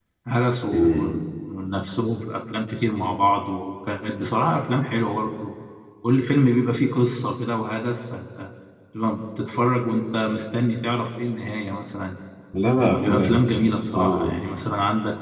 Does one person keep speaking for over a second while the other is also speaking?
No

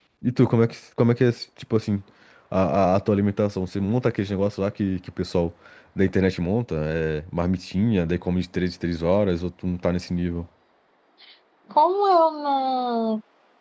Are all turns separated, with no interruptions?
Yes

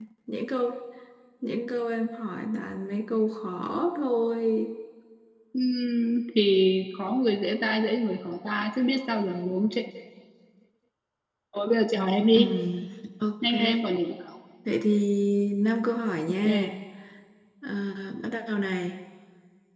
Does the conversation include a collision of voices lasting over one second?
No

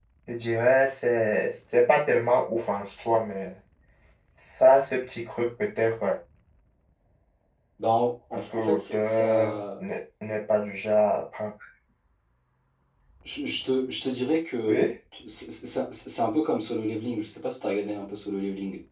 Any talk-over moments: Yes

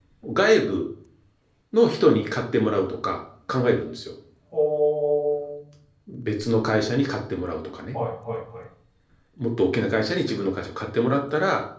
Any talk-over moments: No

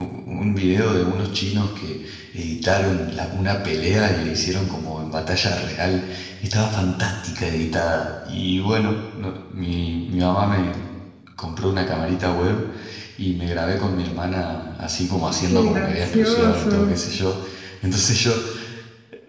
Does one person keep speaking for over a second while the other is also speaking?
Yes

